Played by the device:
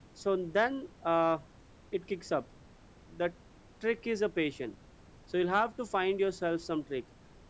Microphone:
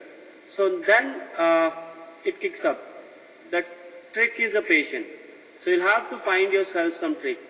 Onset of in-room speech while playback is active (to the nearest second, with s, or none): none